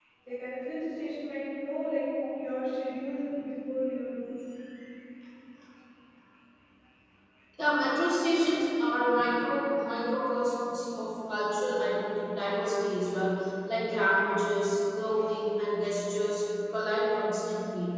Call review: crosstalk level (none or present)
none